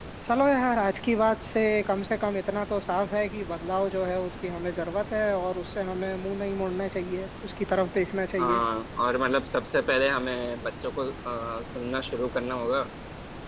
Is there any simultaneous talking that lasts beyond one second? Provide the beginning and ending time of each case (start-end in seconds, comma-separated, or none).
none